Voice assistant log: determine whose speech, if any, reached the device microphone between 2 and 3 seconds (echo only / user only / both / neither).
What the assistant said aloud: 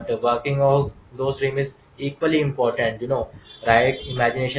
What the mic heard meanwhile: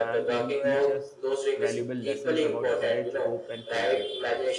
both